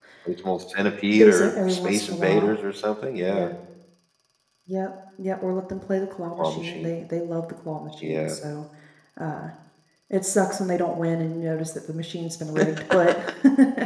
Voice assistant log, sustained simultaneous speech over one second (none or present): present